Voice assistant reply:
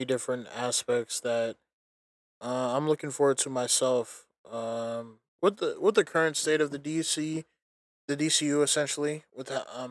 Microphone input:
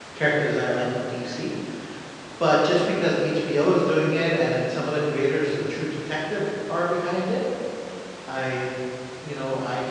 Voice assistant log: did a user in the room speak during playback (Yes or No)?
Yes